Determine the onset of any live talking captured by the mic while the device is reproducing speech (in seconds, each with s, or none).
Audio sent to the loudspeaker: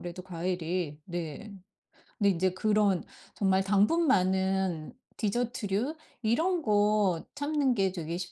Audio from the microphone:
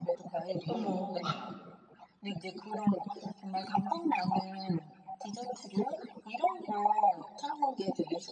0.6 s